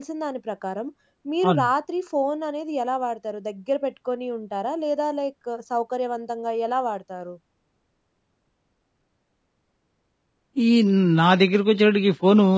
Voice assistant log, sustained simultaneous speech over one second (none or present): none